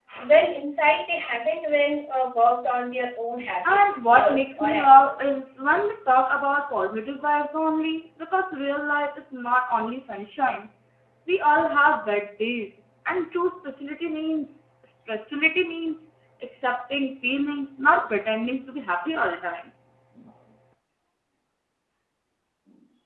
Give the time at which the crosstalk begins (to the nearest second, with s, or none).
4 s